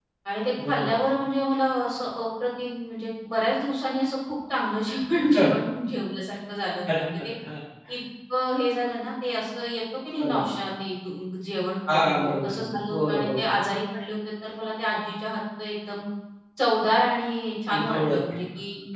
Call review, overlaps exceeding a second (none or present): present